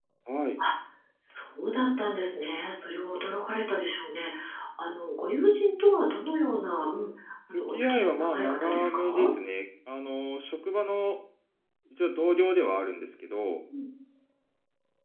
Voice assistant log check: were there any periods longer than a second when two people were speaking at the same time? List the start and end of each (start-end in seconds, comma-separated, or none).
7.5-9.3